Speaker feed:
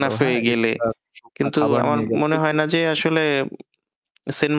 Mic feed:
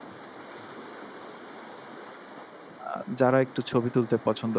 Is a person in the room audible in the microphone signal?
Yes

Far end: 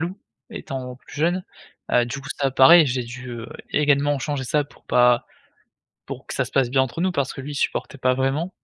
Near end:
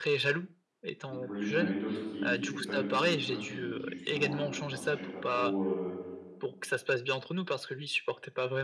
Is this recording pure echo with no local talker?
No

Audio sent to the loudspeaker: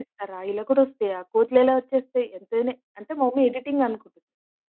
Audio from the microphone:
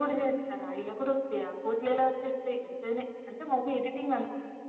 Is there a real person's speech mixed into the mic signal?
No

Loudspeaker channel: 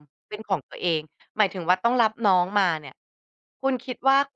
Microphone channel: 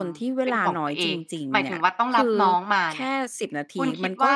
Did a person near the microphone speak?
Yes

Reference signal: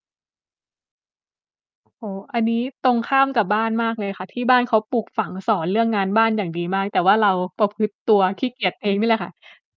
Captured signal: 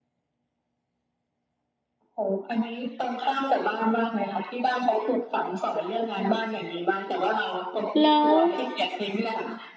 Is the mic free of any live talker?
No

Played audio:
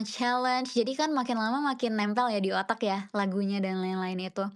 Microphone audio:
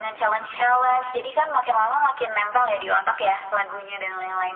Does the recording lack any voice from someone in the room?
Yes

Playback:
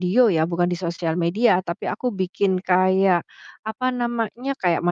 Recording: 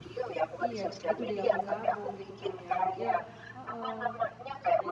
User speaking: Yes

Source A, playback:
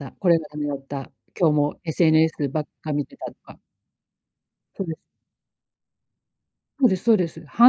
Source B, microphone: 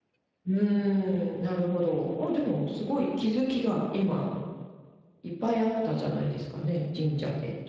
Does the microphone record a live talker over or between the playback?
Yes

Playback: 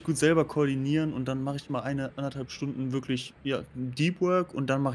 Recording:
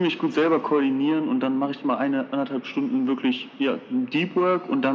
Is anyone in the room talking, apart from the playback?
No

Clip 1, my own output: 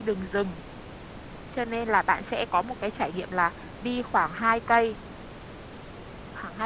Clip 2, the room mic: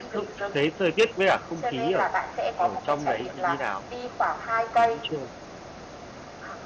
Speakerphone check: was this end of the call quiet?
No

